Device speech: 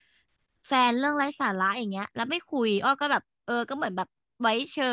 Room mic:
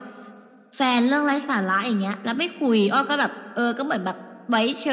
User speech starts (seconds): none

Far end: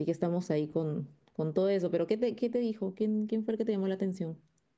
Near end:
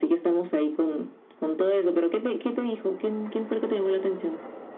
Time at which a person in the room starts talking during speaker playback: none

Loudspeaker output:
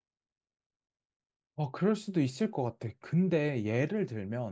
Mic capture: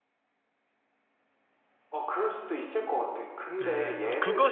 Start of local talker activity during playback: 3.6 s

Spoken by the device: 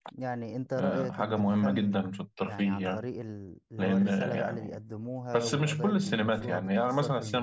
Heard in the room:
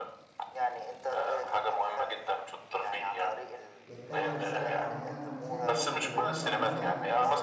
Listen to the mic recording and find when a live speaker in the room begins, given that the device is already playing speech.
3.9 s

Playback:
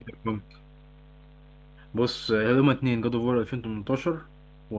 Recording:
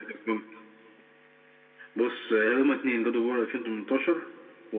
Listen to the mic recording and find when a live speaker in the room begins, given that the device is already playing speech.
none

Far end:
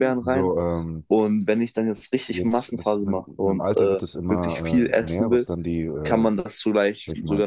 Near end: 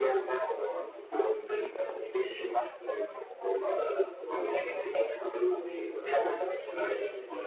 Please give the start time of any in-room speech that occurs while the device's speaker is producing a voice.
none

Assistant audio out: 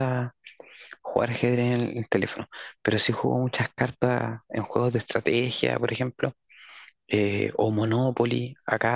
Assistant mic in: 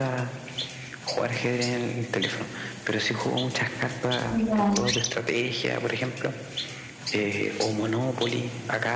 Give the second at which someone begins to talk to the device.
4.3 s

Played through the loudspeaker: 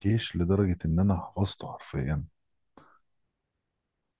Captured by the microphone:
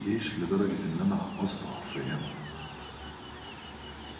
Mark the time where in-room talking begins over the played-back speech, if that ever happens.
none

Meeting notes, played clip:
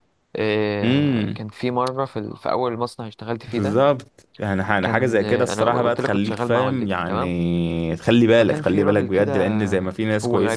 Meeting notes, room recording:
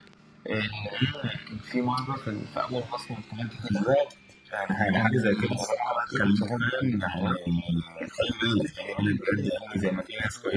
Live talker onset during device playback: none

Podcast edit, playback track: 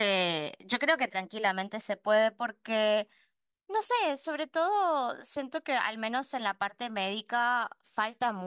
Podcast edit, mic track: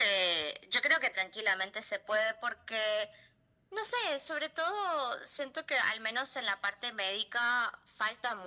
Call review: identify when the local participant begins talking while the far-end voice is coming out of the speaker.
none

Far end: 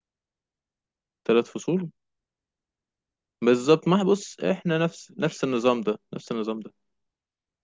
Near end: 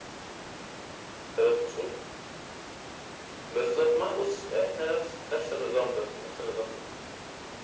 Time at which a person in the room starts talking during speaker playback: none

